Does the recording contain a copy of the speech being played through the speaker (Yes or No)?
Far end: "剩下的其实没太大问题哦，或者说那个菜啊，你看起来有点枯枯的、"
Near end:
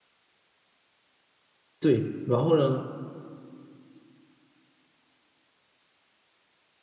No